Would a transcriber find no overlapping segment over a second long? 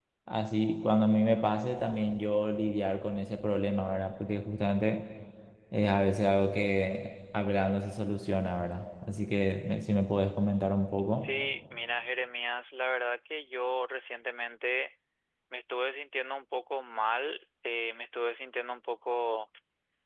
Yes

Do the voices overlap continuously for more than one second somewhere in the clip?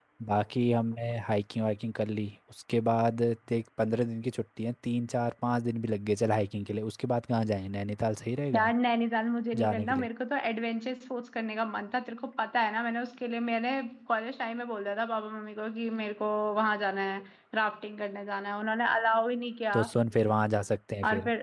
No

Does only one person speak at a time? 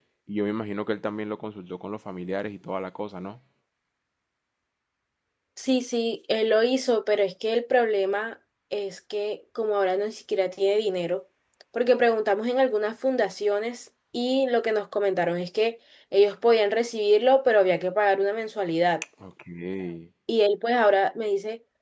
Yes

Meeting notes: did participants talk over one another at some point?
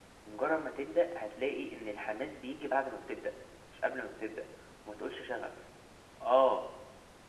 No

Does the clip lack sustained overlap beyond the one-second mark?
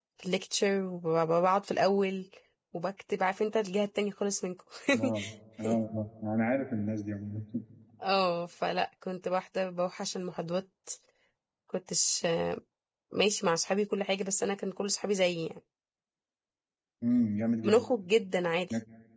Yes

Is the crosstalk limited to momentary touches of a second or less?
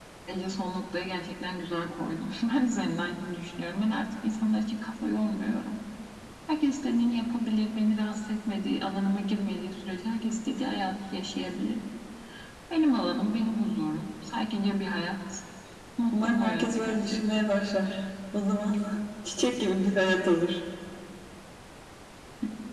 No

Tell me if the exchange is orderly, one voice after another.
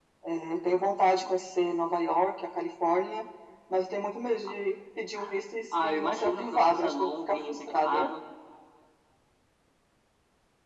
No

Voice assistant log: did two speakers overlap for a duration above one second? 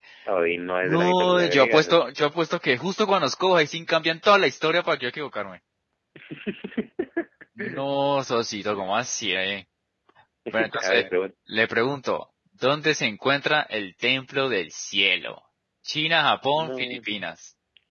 Yes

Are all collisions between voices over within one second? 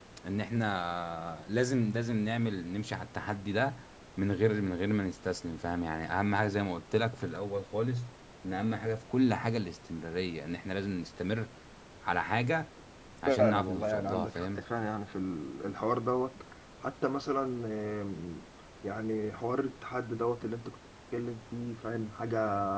No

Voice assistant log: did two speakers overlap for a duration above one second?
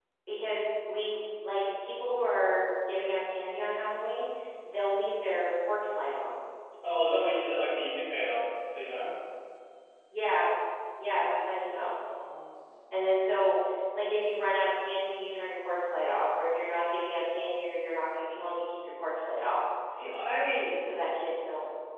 No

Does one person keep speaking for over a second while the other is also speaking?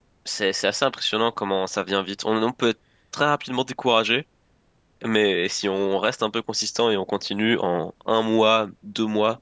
No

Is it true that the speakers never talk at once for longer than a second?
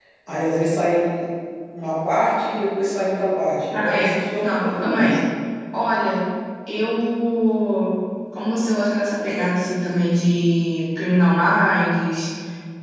No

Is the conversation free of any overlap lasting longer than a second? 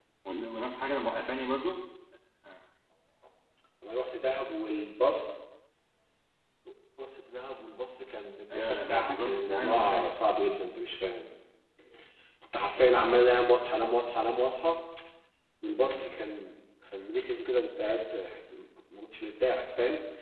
No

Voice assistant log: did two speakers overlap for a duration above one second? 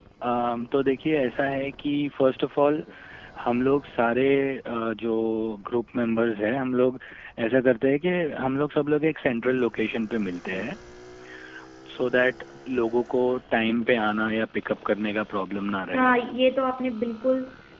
No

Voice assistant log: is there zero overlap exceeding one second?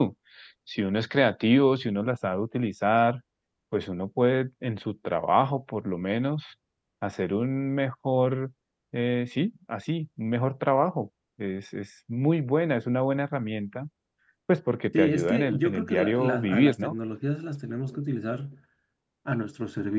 No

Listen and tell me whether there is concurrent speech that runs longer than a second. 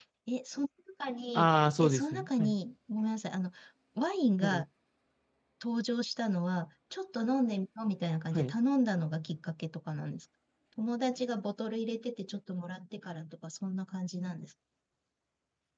Yes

